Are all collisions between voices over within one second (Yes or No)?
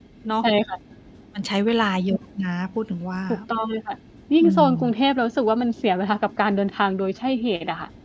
Yes